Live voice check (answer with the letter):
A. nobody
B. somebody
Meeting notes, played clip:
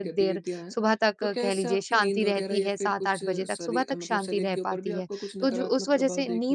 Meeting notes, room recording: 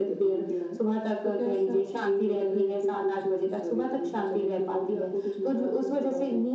A